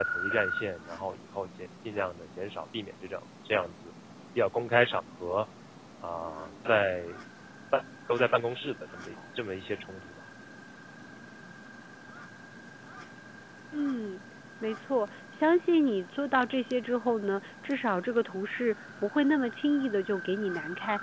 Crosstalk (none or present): none